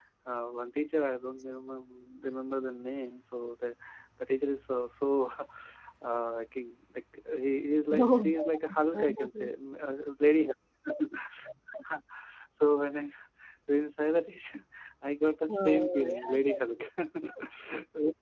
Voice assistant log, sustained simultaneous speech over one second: present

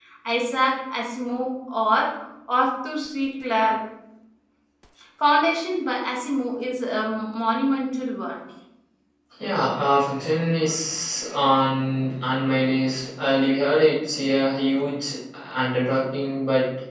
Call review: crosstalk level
none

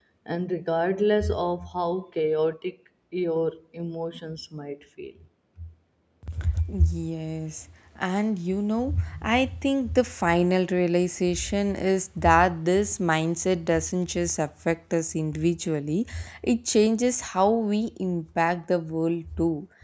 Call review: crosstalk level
none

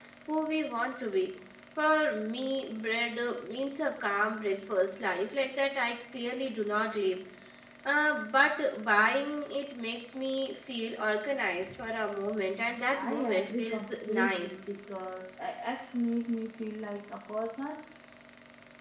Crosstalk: present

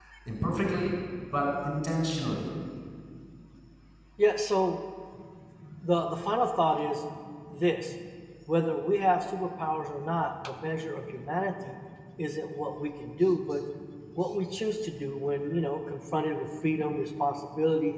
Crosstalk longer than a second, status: none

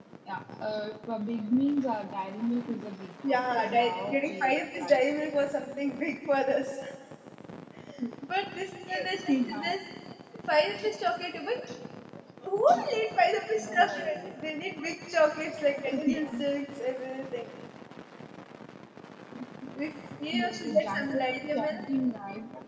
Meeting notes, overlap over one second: present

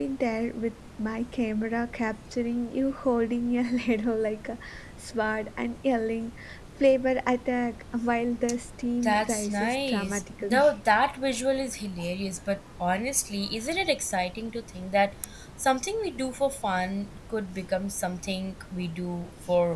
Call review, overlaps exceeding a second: present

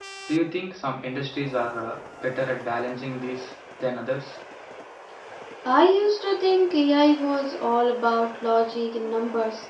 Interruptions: none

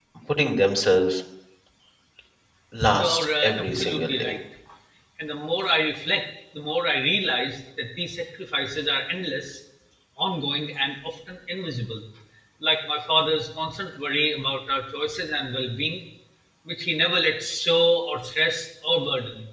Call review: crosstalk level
present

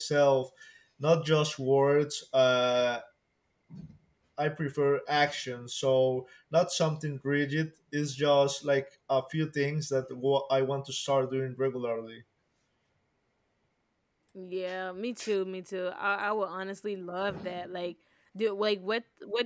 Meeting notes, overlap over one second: none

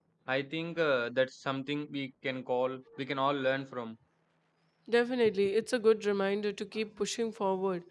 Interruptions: none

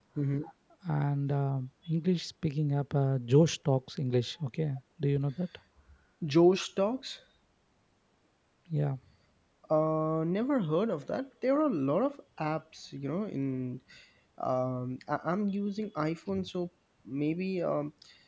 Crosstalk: none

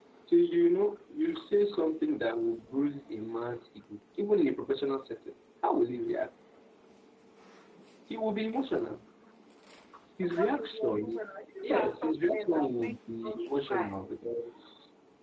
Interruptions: present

